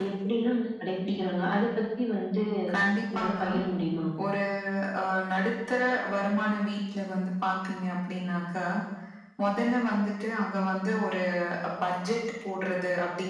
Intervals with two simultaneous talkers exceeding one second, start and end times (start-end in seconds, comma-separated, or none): none